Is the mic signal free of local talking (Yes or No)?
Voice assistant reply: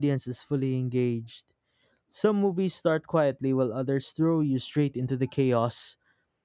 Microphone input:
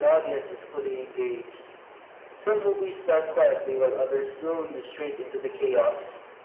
Yes